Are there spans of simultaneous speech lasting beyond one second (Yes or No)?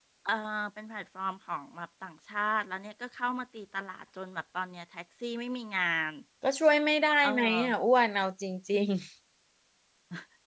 No